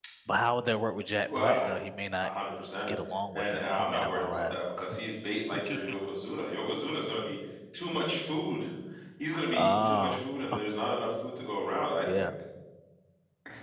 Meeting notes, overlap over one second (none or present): present